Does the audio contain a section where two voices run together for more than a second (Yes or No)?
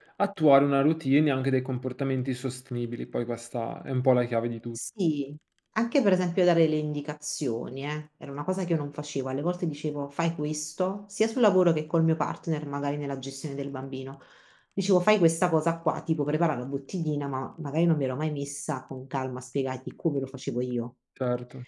No